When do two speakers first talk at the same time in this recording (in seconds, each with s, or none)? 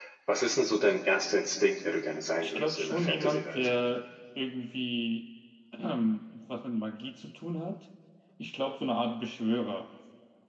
2.4 s